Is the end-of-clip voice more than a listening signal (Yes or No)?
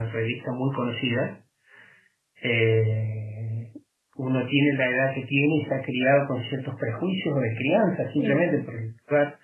No